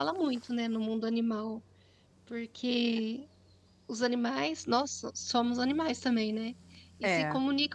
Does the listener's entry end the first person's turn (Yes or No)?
No